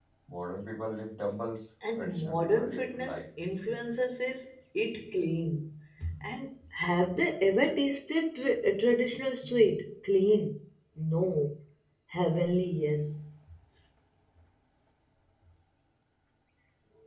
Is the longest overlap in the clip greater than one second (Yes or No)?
Yes